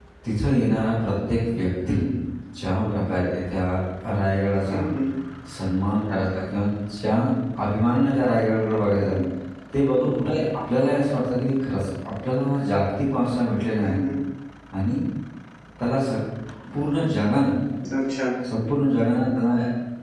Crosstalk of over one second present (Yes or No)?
No